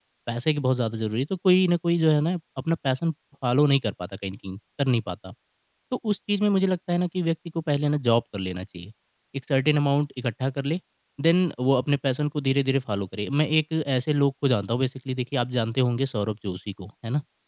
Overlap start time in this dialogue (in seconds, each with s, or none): none